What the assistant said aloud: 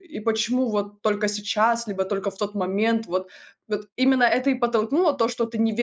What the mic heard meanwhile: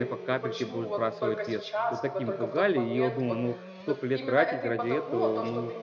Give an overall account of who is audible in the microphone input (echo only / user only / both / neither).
both